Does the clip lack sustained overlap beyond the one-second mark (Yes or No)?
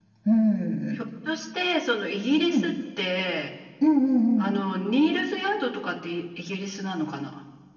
Yes